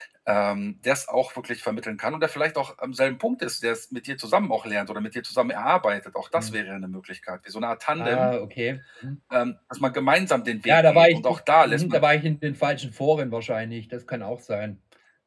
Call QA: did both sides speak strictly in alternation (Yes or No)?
No